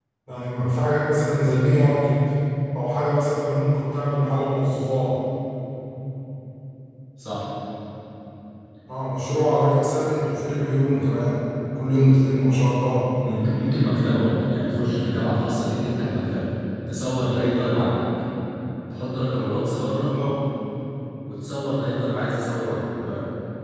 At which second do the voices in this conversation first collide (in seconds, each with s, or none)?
none